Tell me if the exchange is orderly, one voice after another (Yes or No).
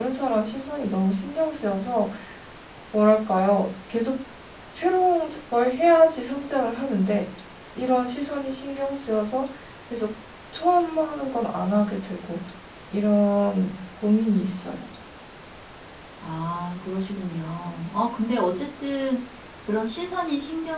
Yes